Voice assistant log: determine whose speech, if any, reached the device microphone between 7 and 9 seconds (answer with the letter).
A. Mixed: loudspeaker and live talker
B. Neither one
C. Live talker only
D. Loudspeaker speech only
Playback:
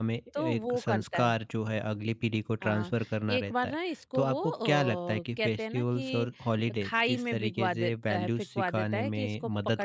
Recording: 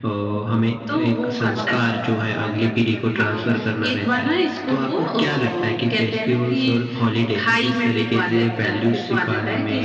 D